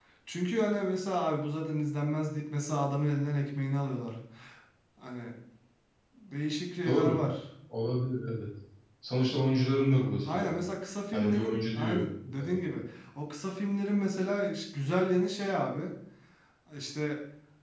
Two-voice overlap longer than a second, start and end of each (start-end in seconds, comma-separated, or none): 11.1-12.6